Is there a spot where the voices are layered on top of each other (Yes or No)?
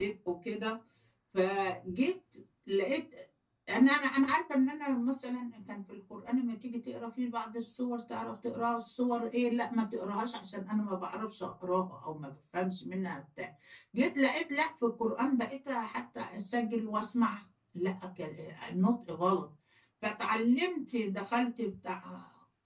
No